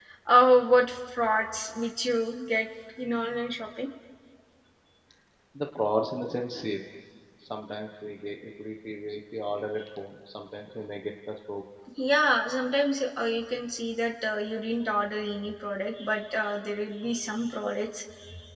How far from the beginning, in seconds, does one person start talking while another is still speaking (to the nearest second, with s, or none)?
none